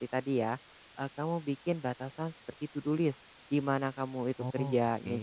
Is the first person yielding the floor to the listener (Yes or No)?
No